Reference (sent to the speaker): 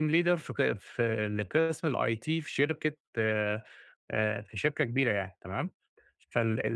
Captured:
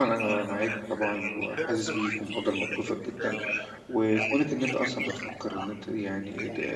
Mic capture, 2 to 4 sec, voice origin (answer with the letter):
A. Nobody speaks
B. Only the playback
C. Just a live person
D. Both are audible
D